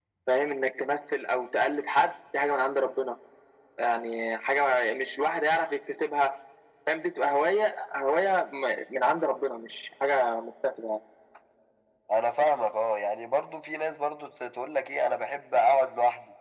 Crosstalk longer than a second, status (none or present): none